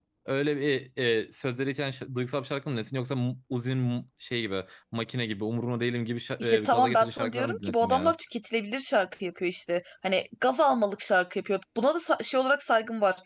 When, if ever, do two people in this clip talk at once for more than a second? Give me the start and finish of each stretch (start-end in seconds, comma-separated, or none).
6.4-8.1